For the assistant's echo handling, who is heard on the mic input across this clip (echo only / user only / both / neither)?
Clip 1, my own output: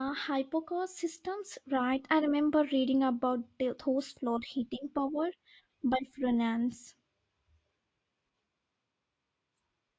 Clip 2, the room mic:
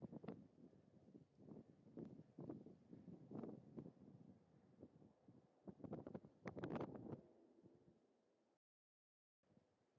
neither